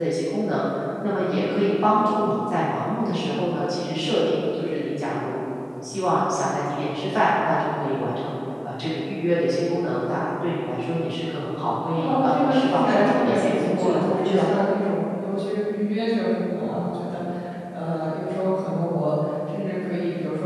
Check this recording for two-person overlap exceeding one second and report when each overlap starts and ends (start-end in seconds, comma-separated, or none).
12.0-14.5